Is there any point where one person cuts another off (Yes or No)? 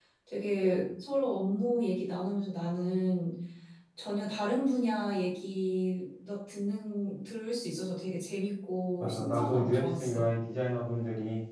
Yes